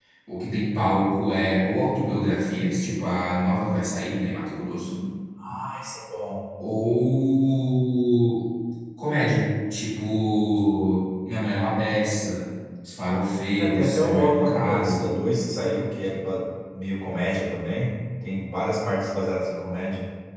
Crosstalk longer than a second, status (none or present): present